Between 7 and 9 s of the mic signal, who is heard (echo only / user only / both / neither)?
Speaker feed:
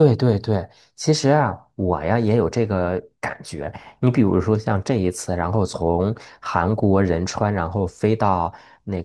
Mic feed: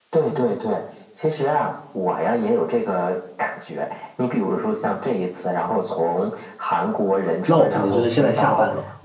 both